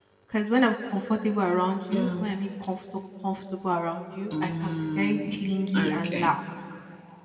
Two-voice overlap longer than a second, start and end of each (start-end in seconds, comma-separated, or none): 4.4-6.3